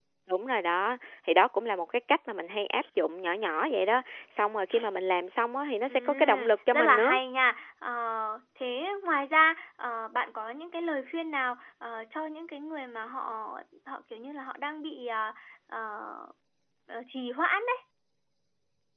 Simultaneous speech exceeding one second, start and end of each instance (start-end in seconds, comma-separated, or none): 5.9-7.2